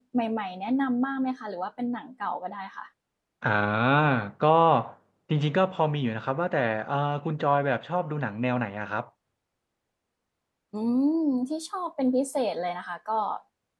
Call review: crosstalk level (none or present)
none